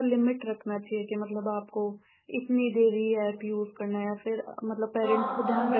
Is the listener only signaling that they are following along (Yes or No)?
No